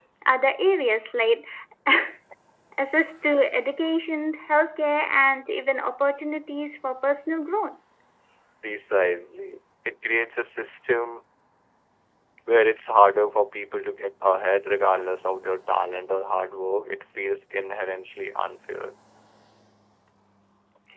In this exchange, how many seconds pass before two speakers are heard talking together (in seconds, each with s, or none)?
none